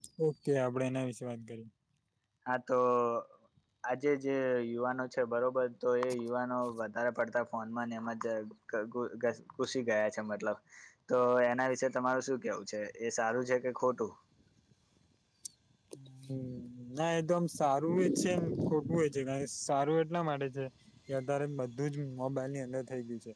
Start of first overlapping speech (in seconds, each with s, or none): none